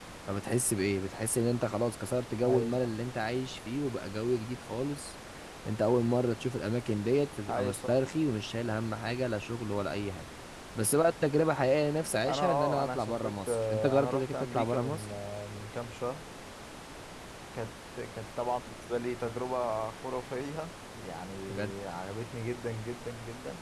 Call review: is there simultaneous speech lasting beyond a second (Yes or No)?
Yes